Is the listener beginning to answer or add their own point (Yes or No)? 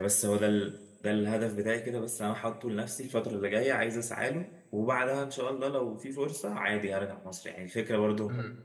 No